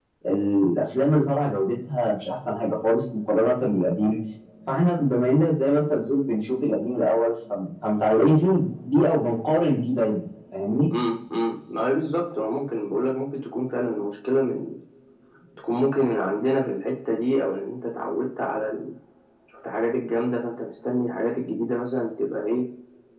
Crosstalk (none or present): none